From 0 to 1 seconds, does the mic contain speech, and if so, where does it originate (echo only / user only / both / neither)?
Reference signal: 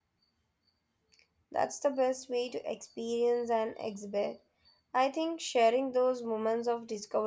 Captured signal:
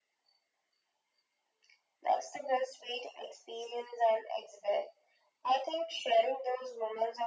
neither